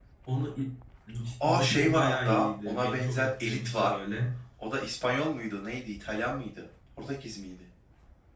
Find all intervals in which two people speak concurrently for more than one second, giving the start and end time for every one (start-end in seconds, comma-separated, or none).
1.4-4.0